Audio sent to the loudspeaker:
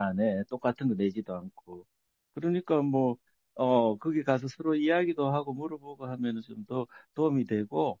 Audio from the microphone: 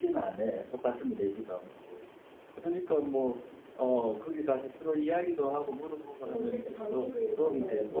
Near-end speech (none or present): present